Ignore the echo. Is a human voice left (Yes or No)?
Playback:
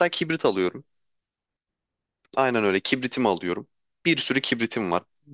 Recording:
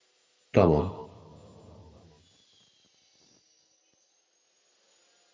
Yes